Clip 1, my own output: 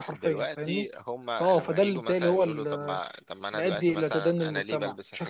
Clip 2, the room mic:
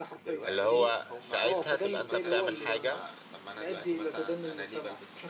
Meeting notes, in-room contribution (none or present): present